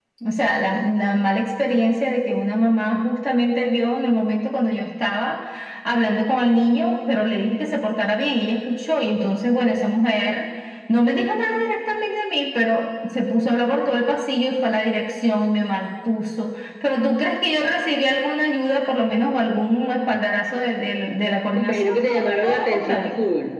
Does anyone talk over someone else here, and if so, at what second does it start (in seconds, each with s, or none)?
21.6 s